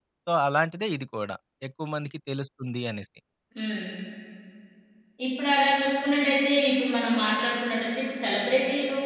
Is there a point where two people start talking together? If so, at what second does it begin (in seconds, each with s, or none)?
none